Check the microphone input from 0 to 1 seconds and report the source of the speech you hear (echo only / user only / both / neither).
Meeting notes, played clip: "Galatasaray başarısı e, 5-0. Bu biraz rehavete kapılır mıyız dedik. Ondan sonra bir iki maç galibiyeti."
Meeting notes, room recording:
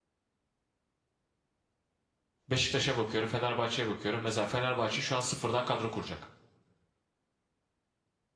neither